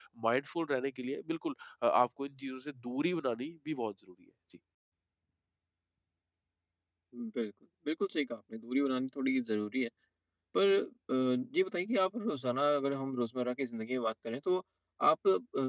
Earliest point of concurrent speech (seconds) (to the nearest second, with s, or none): none